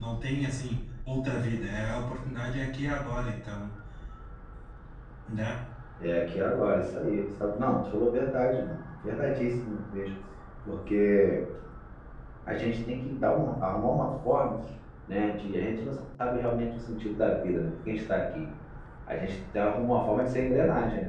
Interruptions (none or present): none